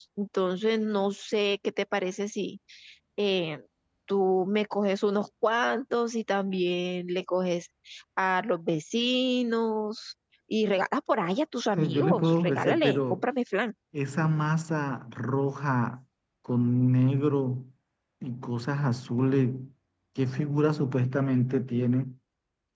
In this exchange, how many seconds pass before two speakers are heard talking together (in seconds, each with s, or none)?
11.7 s